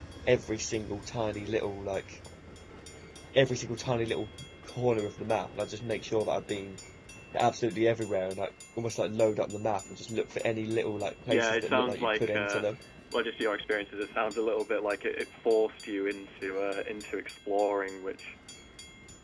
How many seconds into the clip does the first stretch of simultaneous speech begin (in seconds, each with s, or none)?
11.3 s